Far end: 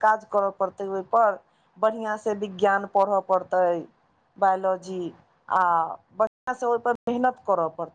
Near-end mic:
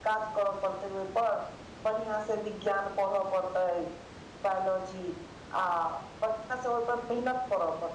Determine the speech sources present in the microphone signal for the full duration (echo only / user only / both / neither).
echo only